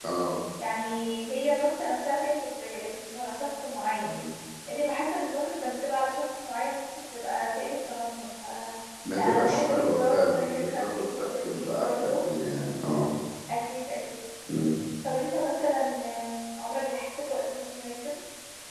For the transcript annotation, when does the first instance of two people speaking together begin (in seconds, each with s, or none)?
9.2 s